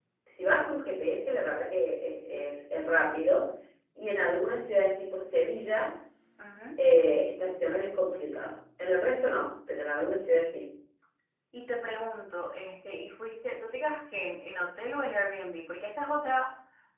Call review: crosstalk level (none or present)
none